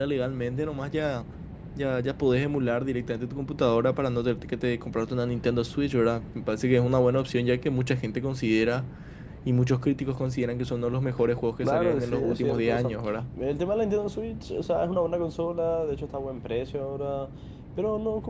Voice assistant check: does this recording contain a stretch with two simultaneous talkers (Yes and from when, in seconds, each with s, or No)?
Yes, from 11.6 s